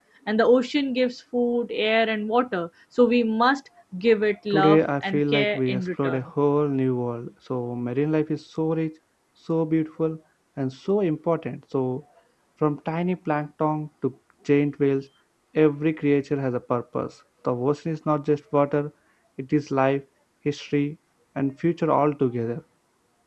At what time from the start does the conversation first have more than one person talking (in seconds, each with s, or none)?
4.5 s